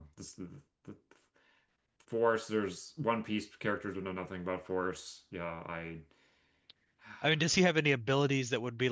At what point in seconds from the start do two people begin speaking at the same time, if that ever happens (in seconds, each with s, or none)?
none